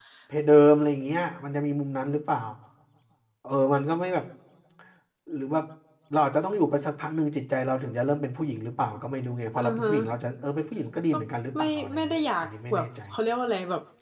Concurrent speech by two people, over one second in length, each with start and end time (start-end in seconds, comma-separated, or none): 11.6-12.9